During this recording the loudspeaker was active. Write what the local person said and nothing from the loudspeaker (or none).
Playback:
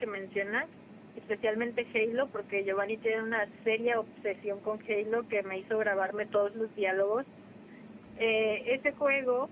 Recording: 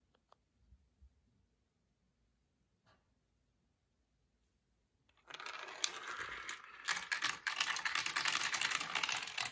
none